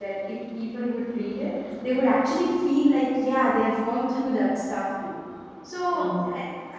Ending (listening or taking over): listening